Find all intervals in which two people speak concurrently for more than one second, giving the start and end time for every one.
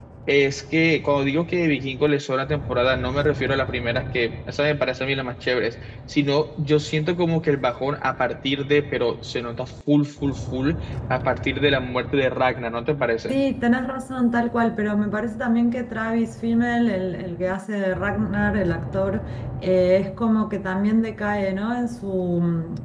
none

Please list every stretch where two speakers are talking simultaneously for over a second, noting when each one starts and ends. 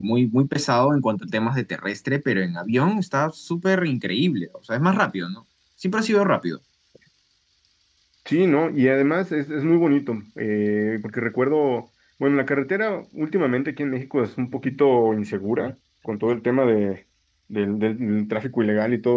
none

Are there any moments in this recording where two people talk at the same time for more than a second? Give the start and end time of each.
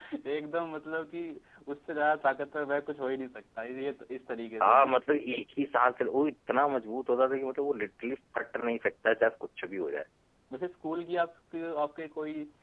none

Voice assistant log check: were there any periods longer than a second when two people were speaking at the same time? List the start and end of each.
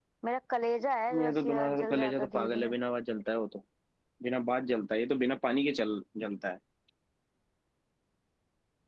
1.2-2.7

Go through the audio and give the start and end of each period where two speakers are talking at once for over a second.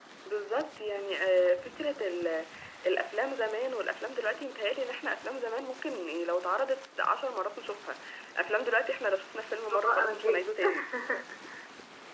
9.7-10.9

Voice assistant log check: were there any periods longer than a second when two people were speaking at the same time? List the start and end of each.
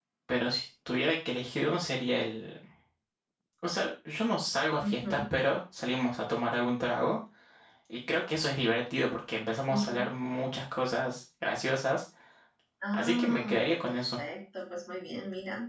12.9-14.2

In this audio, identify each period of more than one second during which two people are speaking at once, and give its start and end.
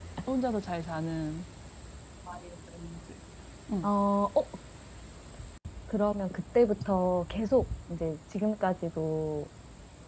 none

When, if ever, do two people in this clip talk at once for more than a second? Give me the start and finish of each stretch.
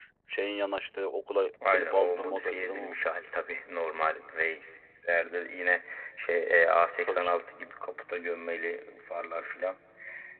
1.7-2.9

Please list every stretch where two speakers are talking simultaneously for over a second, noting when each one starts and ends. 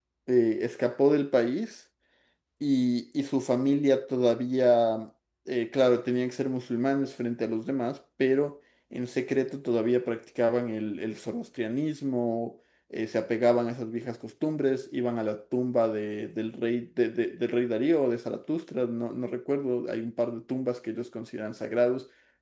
none

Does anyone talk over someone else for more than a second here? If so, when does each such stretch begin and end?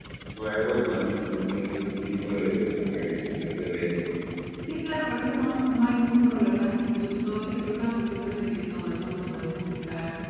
none

